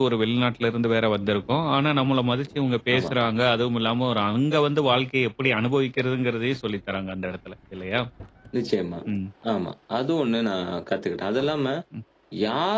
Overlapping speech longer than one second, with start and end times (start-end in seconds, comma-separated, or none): none